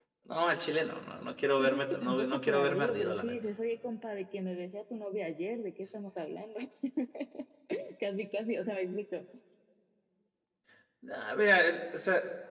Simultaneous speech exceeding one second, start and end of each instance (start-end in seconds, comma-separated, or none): 1.6-3.3